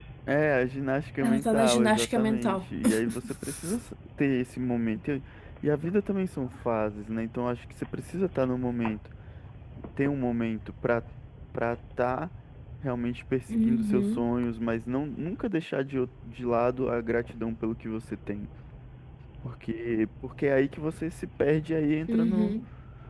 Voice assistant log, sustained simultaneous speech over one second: present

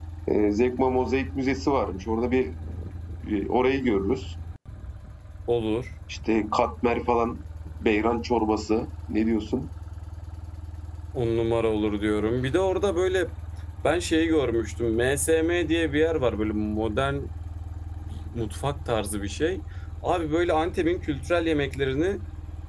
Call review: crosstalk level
none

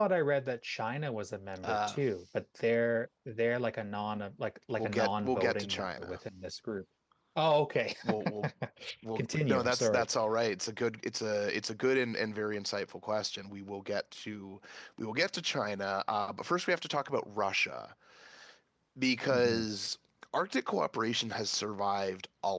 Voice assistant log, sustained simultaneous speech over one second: present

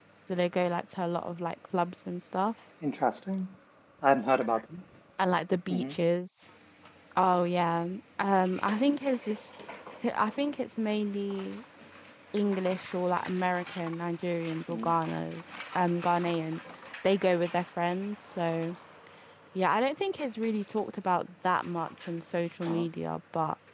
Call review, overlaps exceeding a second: none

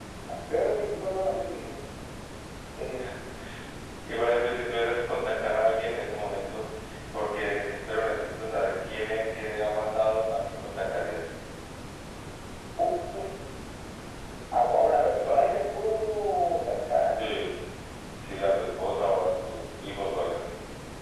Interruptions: none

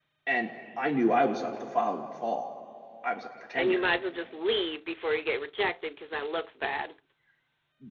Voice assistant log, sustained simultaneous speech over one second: none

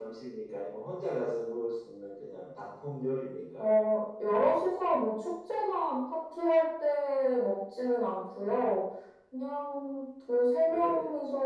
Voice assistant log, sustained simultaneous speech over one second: none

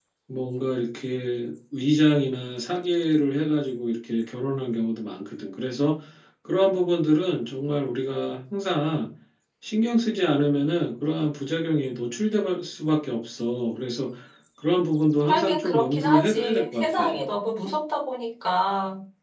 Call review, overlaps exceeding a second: present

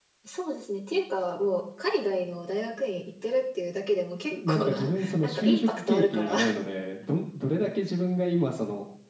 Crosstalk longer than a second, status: present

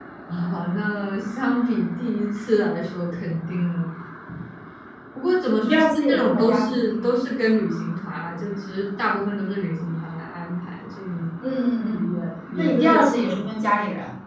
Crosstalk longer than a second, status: present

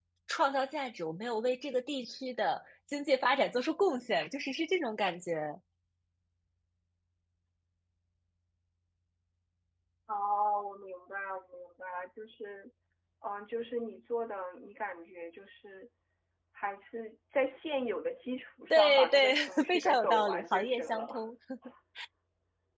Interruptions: present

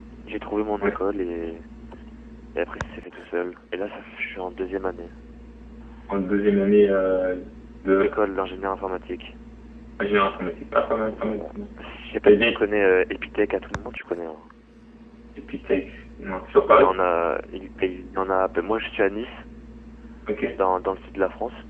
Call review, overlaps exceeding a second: none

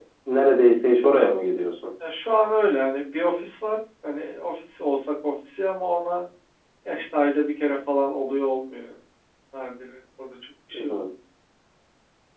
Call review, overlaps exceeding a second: none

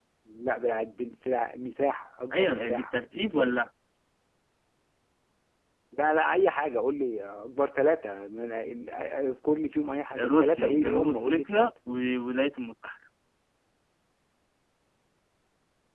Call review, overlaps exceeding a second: present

